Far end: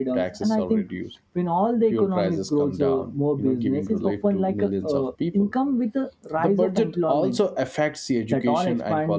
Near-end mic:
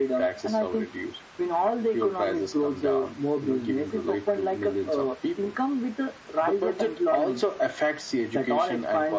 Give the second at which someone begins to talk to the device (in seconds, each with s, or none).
none